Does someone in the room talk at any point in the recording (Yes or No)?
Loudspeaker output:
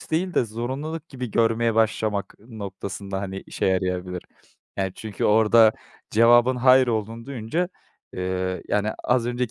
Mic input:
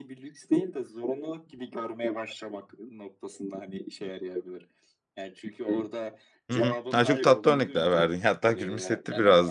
Yes